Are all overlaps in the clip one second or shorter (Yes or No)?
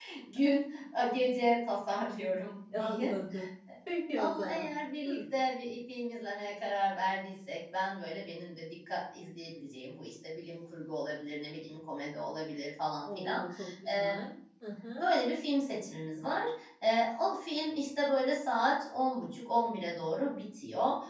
Yes